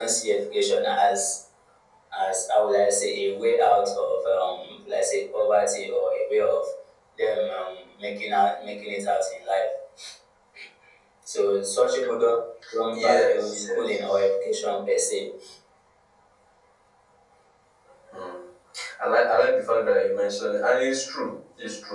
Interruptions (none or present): present